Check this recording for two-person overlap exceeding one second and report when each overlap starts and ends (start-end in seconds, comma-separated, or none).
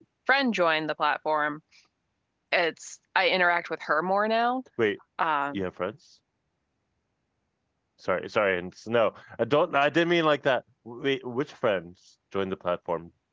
none